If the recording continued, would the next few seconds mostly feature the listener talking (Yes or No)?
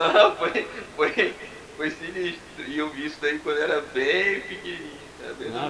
Yes